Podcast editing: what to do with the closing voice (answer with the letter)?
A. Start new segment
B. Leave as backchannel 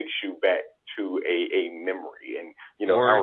B